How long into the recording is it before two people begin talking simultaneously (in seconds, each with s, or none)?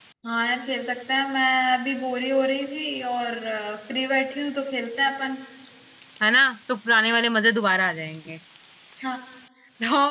none